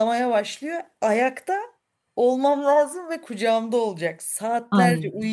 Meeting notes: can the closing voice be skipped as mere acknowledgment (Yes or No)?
Yes